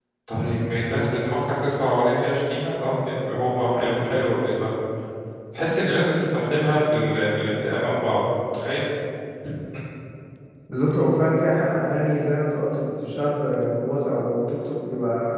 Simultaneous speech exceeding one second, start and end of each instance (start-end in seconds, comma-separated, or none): none